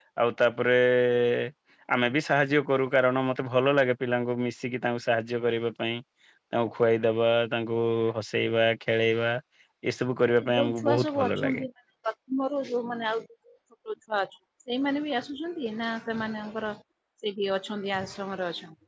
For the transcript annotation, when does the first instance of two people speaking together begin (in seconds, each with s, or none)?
10.4 s